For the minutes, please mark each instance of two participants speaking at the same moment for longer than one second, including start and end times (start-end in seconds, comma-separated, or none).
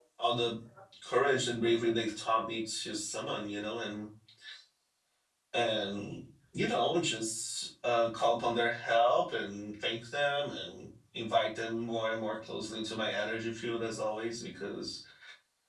none